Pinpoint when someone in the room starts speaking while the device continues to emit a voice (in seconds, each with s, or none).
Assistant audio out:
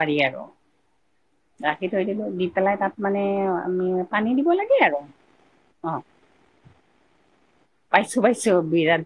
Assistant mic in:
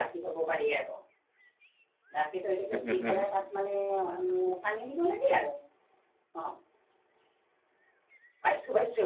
2.7 s